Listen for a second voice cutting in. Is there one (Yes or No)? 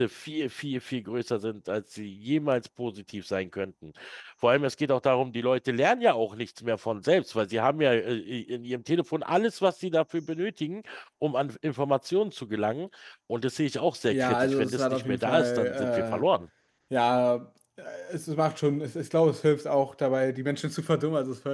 Yes